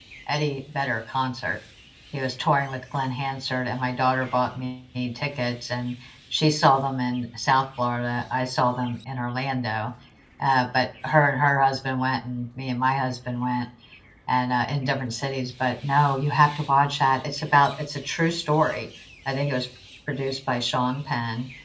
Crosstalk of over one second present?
No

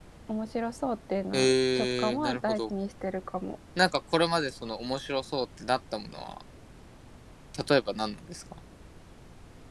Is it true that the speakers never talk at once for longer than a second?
No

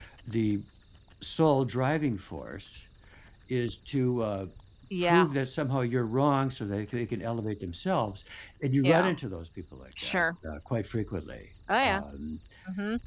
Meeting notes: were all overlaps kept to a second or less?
Yes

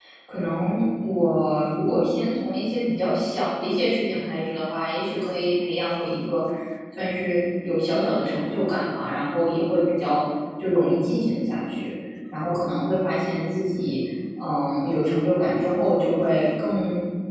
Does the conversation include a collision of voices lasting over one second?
No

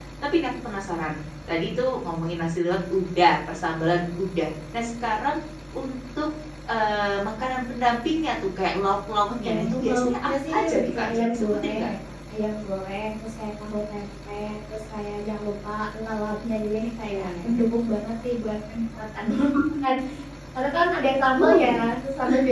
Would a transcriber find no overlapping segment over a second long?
No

